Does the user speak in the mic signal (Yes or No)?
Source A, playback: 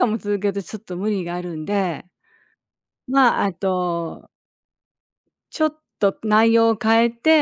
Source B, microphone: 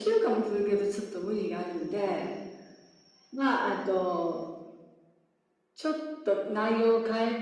No